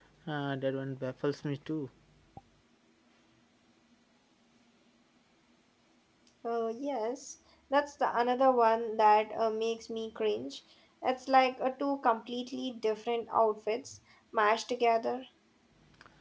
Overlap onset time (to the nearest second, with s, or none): none